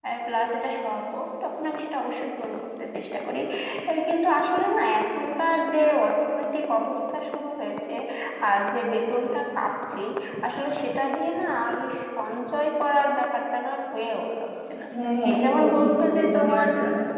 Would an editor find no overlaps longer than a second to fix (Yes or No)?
No